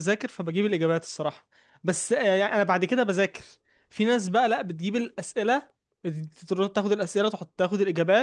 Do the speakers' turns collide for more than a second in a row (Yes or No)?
No